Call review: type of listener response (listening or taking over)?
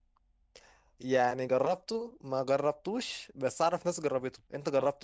taking over